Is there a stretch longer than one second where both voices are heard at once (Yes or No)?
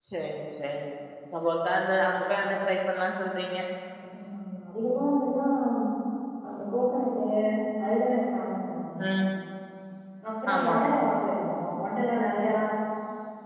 No